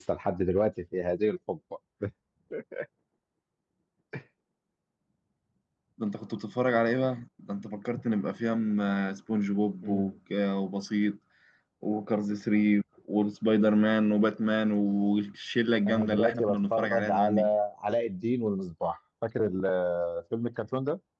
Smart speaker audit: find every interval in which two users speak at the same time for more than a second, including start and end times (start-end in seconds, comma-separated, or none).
15.9-17.5